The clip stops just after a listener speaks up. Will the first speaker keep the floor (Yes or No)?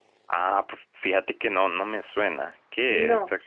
No